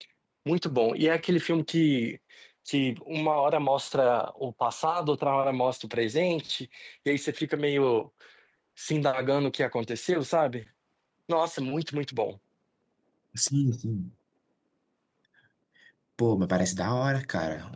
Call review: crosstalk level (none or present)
none